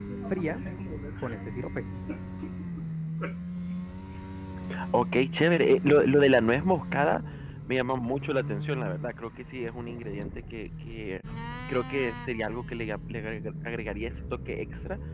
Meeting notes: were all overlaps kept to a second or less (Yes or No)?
Yes